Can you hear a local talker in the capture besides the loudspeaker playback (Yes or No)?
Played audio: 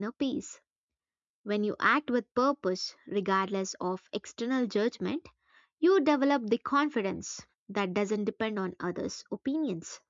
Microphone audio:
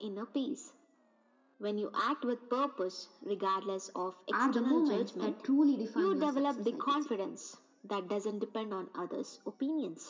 Yes